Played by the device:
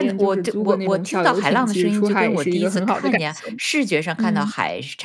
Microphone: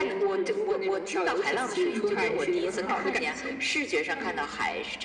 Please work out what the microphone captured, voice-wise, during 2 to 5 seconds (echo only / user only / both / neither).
both